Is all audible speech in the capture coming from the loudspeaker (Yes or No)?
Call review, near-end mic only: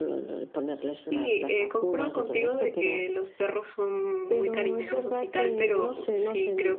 No